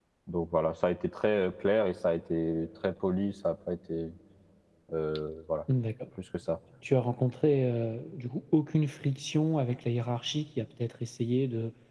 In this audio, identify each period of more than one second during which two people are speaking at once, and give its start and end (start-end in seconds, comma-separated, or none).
none